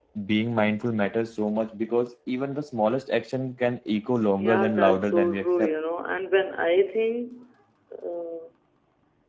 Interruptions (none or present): present